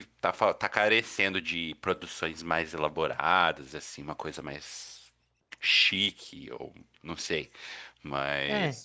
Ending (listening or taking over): taking over